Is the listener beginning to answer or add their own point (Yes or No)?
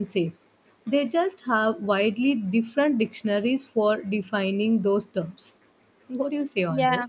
Yes